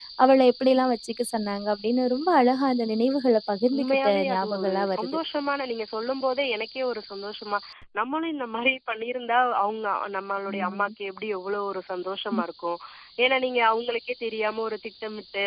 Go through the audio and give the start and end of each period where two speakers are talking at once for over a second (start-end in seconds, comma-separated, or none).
3.8-5.1